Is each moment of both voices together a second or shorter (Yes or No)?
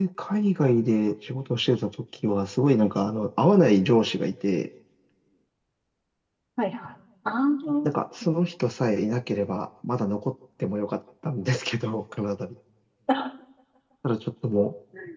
Yes